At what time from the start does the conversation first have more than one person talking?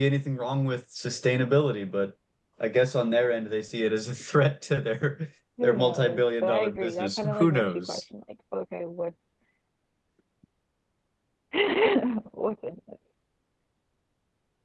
5.6 s

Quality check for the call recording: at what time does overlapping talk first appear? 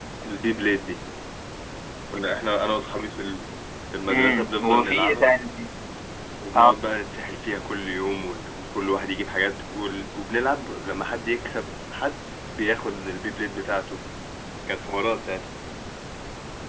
4.1 s

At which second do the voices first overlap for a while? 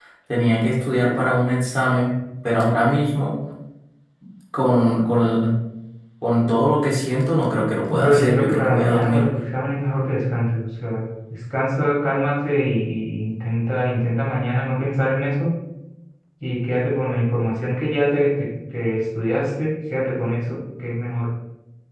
7.8 s

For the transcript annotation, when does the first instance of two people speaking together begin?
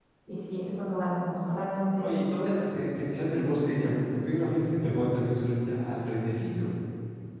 none

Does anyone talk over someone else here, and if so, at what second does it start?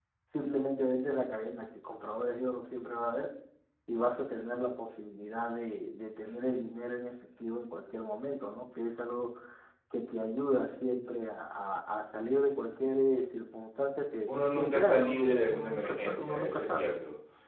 14.6 s

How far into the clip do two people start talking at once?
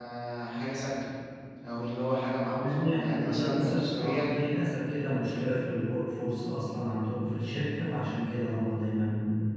2.5 s

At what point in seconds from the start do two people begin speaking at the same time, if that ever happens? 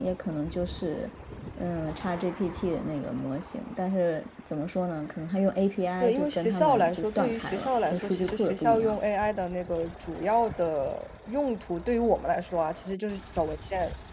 6.0 s

